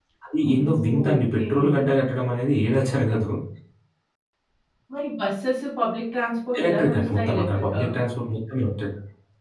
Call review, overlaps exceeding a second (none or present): present